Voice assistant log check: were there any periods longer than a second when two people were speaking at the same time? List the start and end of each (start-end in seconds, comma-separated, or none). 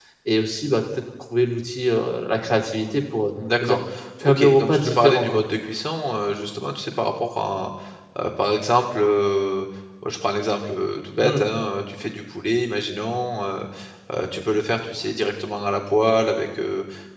4.2-5.4